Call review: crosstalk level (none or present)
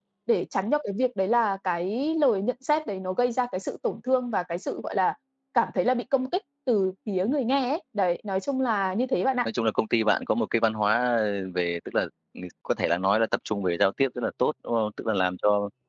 none